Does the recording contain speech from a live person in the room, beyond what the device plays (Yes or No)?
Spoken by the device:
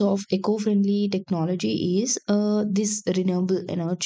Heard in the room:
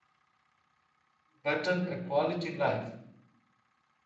Yes